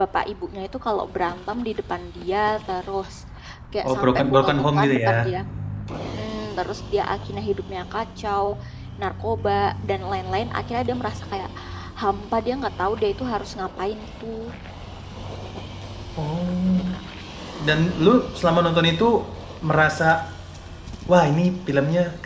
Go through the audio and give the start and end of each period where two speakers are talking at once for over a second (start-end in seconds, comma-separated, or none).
3.8-5.3